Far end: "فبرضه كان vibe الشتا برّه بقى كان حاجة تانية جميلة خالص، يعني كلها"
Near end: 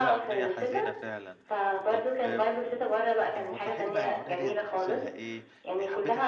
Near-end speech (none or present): present